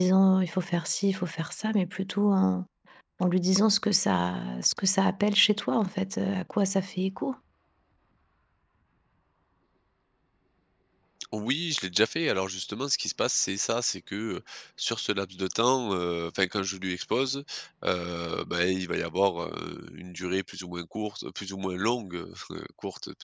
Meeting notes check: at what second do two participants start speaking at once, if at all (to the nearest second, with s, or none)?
none